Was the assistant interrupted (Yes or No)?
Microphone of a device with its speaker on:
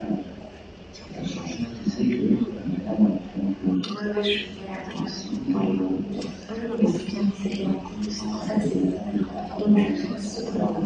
No